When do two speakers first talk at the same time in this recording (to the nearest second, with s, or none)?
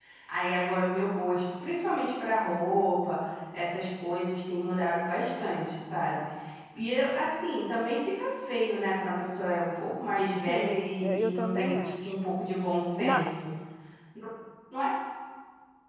10 s